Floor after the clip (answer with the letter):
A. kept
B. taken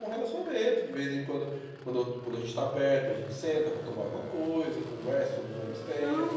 B